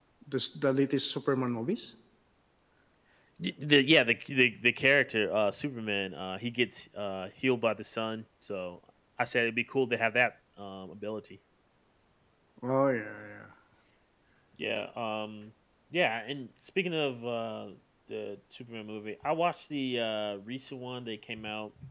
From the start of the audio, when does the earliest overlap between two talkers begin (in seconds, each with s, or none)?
none